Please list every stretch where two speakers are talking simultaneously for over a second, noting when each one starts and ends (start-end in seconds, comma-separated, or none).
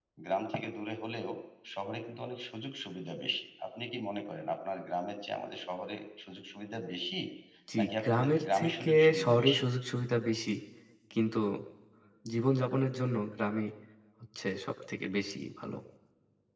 7.8-9.6